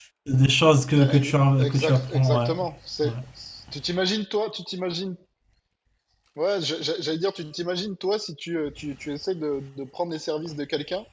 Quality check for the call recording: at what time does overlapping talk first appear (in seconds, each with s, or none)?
0.9 s